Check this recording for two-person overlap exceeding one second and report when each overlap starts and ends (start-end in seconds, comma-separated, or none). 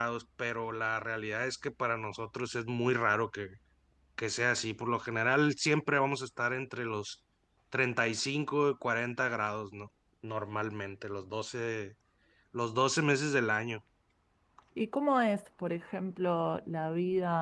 none